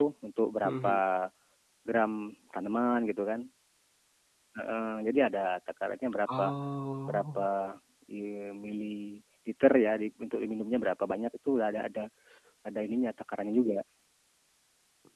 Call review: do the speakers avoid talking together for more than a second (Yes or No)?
Yes